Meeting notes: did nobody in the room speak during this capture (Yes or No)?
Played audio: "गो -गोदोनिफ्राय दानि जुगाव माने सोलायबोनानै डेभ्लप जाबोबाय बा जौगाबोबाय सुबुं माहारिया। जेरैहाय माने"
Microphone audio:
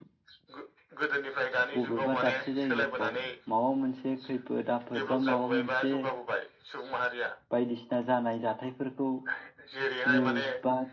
No